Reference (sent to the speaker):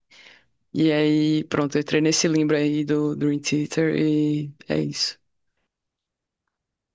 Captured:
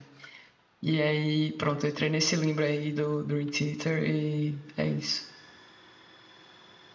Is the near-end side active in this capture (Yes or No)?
No